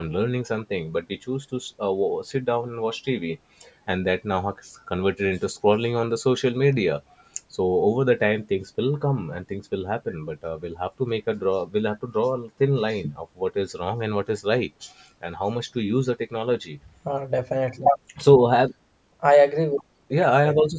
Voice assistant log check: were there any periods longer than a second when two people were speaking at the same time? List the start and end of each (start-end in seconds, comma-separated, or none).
none